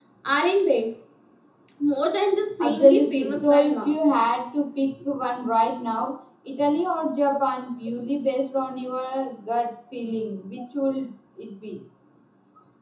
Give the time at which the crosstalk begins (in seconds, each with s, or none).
2.6 s